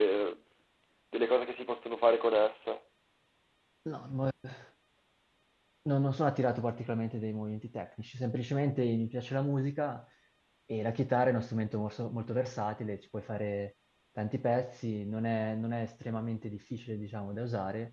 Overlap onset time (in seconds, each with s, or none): none